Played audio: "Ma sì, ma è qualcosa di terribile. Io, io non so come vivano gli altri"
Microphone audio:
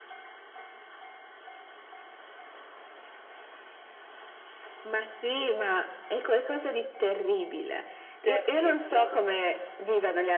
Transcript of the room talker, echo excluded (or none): terribile.